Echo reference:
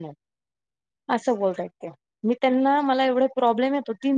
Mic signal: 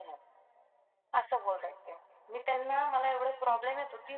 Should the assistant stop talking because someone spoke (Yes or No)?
No